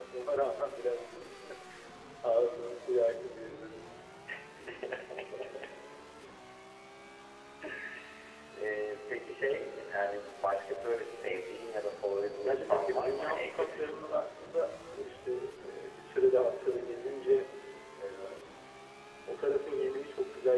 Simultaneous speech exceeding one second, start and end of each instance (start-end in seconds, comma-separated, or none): 12.4-14.2